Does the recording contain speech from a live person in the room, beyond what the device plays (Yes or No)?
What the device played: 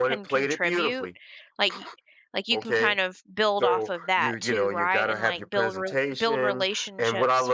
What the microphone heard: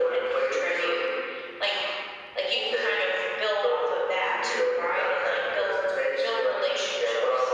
No